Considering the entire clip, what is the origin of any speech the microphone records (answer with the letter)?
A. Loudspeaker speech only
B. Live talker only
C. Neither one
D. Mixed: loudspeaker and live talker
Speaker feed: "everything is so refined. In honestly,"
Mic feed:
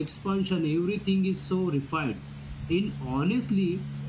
A